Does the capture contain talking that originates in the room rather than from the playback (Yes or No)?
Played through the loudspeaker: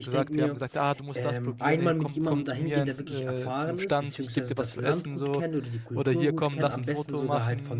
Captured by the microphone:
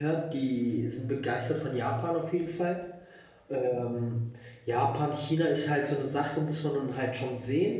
Yes